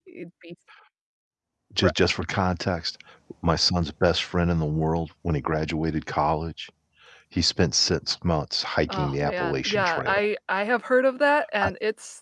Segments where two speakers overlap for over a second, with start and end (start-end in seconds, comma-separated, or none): 8.9-10.2